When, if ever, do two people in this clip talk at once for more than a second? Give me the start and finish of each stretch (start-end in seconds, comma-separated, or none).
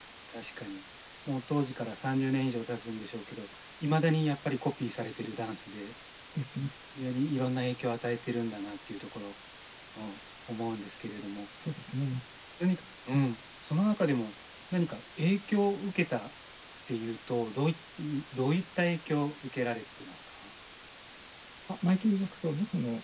none